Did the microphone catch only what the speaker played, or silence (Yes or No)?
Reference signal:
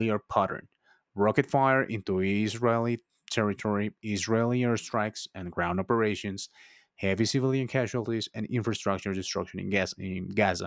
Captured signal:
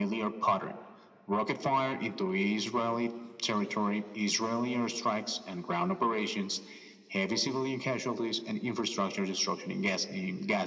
Yes